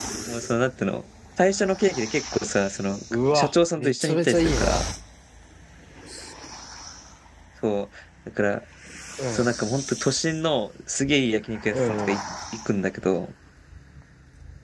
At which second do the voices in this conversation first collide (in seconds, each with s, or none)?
3.3 s